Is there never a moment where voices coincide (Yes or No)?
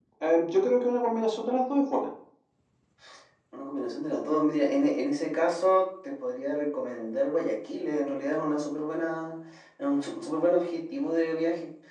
Yes